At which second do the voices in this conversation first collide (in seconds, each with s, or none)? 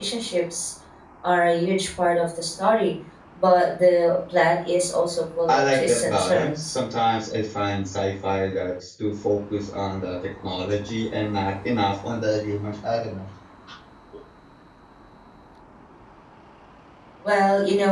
5.5 s